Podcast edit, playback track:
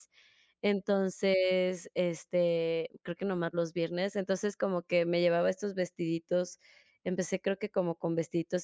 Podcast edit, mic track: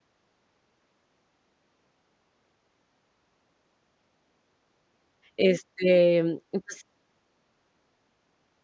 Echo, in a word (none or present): none